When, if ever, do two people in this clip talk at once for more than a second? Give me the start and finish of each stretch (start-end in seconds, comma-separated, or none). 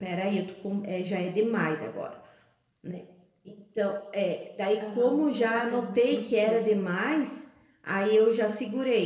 4.9-6.9